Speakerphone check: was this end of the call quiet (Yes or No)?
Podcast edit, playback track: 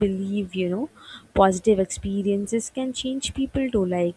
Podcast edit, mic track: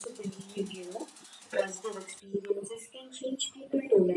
Yes